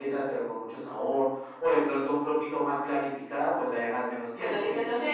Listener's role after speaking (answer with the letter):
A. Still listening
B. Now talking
B